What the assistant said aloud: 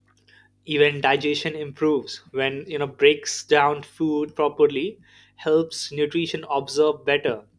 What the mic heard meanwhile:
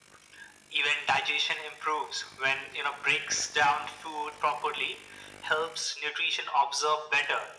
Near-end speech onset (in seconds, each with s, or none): none